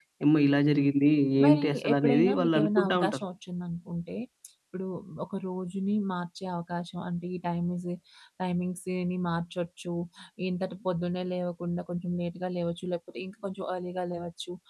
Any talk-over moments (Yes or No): Yes